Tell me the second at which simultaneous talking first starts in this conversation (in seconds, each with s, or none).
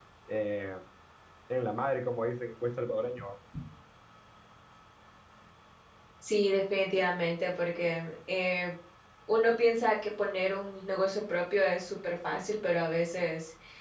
none